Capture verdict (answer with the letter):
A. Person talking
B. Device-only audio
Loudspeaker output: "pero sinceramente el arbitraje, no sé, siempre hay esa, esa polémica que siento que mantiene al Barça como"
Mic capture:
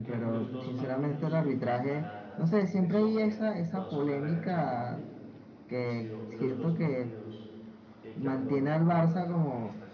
A